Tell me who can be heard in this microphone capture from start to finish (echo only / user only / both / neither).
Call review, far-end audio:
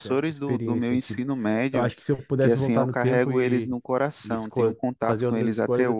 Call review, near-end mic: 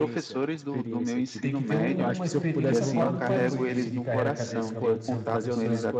both